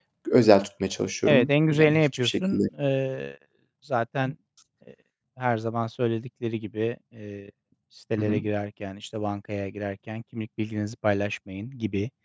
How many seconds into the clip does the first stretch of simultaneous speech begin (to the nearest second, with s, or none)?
1 s